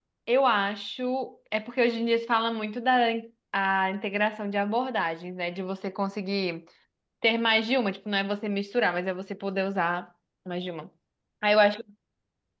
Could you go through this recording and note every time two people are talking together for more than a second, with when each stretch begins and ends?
none

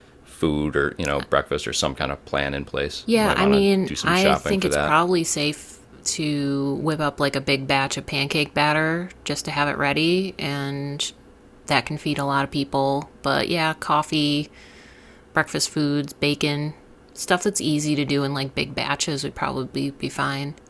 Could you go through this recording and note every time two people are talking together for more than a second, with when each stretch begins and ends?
3.1-4.9

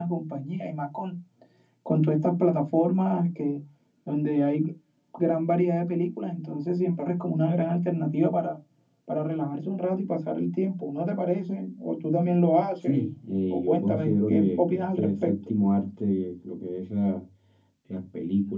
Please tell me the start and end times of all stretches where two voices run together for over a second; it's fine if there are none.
13.5-15.3

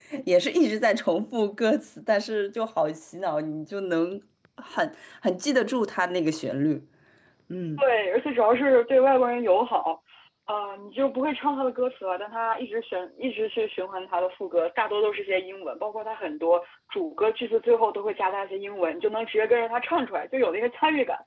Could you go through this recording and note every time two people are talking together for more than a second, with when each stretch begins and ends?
none

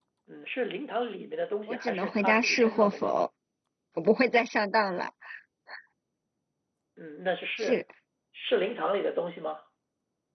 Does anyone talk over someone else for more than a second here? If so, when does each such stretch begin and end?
1.7-3.2

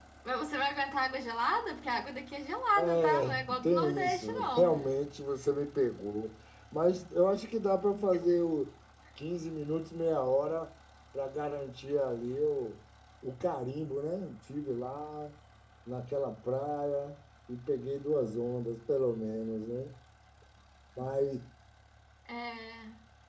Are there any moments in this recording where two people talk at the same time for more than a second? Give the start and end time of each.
2.8-4.7

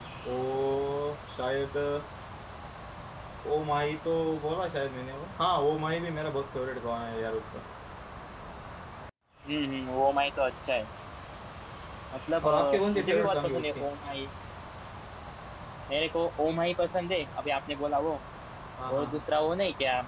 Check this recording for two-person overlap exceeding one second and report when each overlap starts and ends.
12.4-13.8

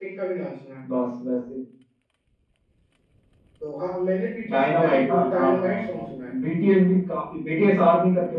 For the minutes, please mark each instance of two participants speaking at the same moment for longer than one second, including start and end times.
4.5-6.3

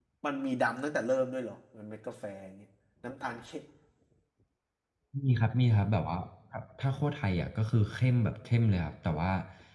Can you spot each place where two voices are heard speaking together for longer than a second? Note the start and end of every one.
none

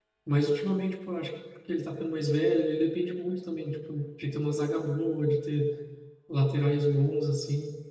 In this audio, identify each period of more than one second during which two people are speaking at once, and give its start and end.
none

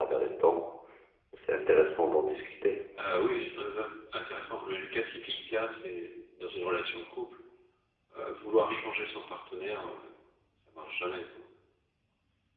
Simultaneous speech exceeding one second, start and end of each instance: none

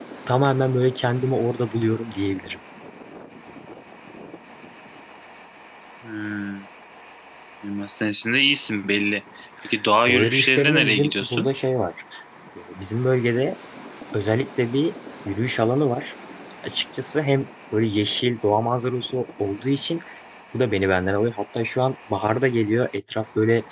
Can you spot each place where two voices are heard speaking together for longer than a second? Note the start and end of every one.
10.1-11.5

